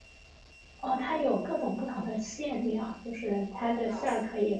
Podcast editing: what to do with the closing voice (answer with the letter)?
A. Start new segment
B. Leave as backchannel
B